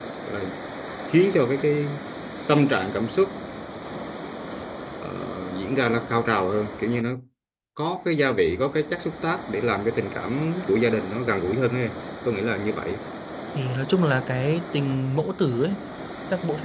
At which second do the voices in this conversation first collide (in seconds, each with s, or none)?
none